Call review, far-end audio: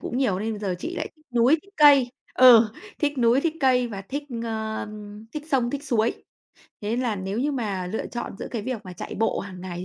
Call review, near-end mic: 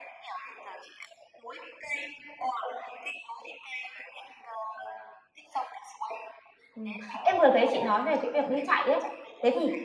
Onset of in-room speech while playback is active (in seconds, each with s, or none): 6.7 s